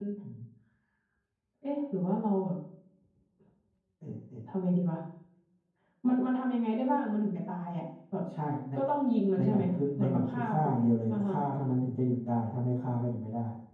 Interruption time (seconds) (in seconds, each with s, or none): 9.4 s